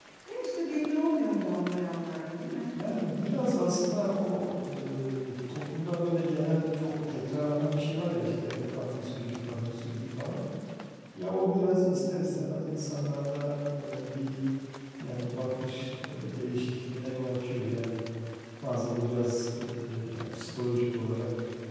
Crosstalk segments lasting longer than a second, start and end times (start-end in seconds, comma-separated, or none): none